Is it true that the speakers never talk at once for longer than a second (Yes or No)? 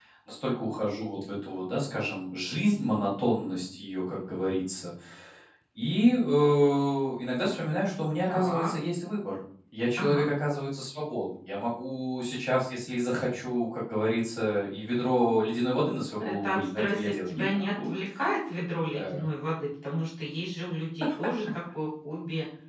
No